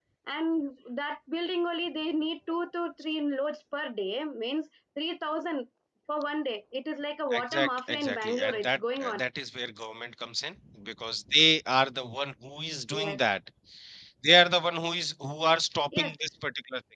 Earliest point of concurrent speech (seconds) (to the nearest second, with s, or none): 7 s